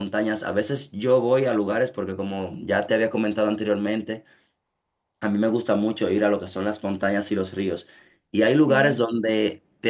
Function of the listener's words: listening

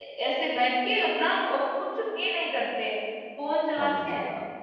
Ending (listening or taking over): listening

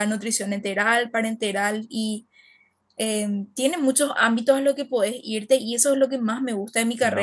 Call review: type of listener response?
listening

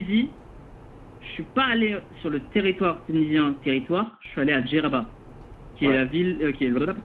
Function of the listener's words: listening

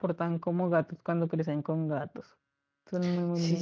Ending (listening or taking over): taking over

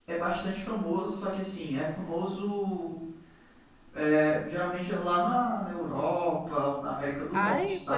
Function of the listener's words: taking over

